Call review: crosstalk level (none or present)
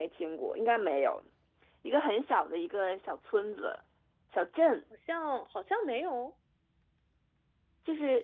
none